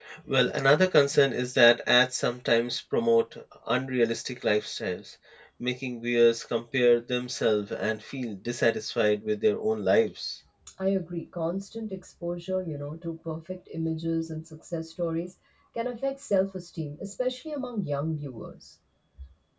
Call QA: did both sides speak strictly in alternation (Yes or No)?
Yes